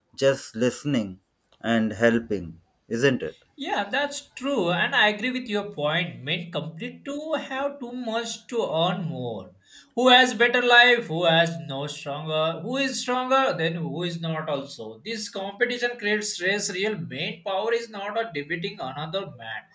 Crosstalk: none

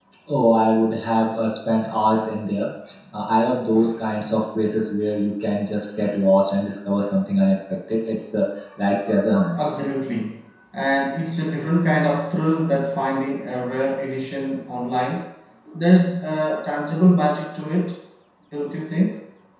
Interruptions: none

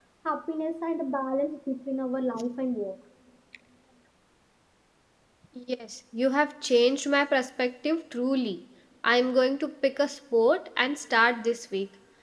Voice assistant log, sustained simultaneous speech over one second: none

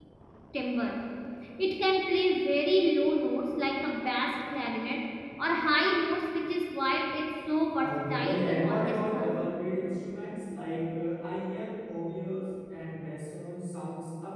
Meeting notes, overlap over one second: present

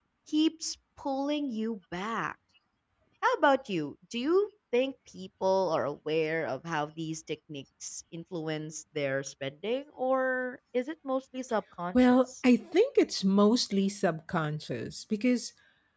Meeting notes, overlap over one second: none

